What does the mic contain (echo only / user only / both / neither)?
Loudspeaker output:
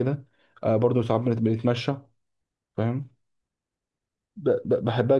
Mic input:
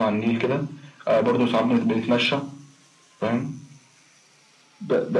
echo only